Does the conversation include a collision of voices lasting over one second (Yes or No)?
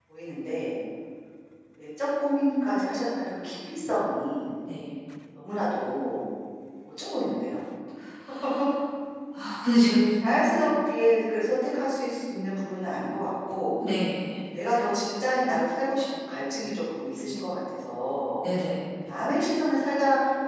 No